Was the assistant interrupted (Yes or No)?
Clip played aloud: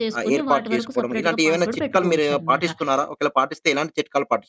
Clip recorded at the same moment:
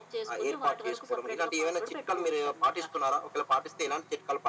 No